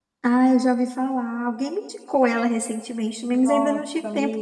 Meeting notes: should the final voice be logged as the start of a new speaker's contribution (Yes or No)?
Yes